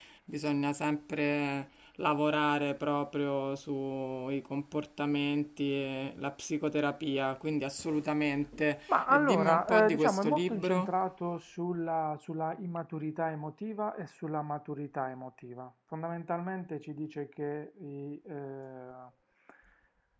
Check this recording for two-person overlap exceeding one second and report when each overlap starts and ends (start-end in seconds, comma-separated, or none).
8.9-10.9